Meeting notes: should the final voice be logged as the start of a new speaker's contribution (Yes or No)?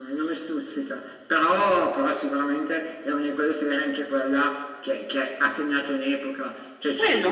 No